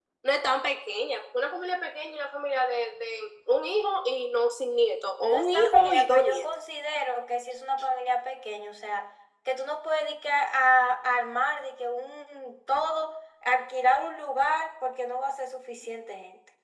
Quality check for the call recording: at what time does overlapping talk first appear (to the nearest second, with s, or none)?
5 s